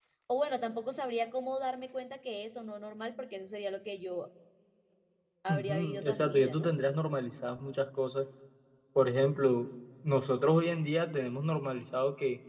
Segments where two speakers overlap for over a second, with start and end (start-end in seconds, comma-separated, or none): 5.5-6.7